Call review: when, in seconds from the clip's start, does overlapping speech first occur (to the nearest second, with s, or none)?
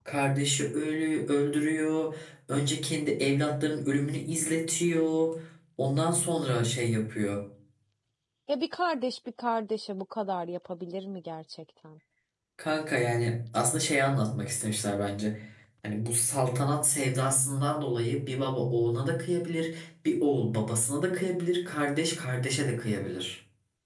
none